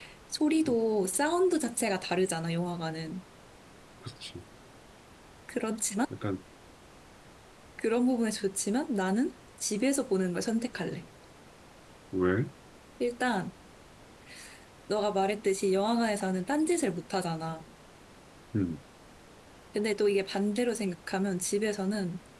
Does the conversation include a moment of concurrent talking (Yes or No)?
No